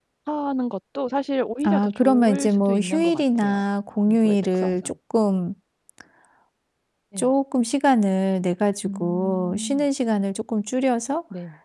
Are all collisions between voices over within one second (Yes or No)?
No